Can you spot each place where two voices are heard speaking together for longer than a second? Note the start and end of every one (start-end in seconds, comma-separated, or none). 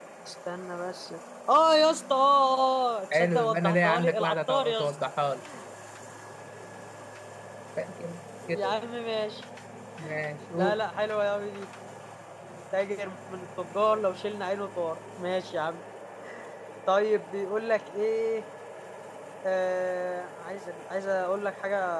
3.1-5.0